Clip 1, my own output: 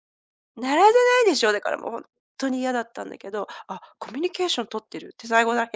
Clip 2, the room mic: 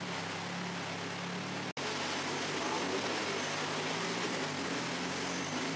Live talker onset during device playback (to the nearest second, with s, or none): none